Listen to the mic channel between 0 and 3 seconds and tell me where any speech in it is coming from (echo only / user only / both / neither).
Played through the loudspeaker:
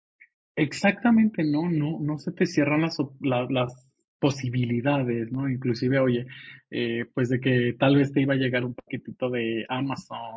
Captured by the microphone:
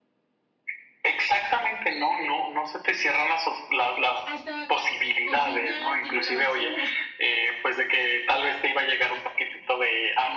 echo only